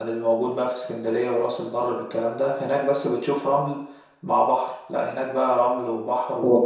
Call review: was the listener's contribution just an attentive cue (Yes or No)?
No